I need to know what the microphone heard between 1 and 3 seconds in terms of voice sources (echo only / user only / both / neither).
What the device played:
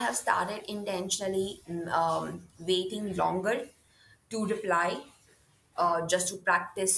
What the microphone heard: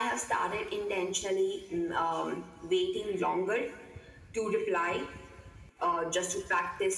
echo only